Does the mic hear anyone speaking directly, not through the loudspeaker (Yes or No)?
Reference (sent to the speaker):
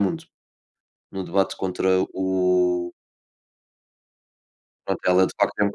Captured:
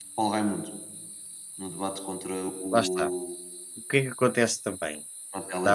Yes